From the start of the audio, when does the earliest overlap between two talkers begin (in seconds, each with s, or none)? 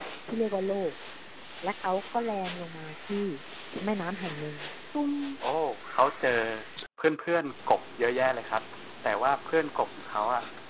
none